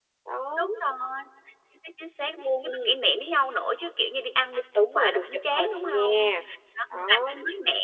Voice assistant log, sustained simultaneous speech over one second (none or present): present